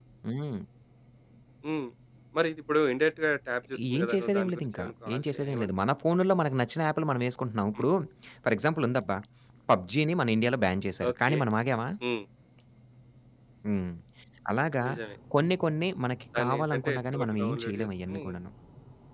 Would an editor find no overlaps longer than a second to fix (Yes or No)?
No